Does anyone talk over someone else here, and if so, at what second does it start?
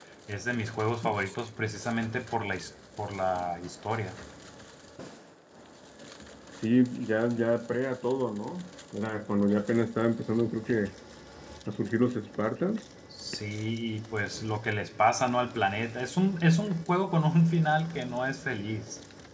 none

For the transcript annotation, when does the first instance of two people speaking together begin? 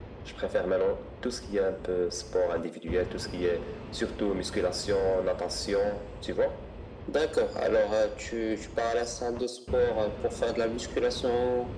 none

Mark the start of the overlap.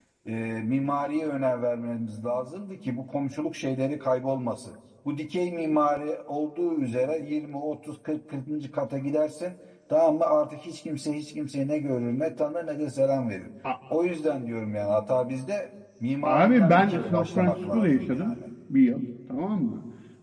16.2 s

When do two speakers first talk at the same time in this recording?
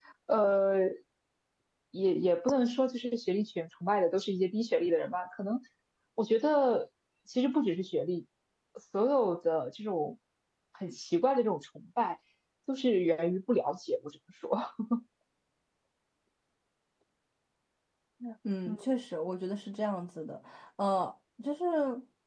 none

